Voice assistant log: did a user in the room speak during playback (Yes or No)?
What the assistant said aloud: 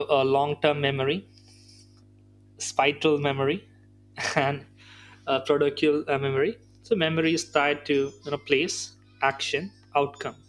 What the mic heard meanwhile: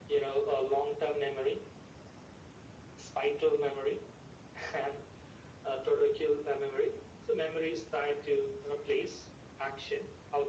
No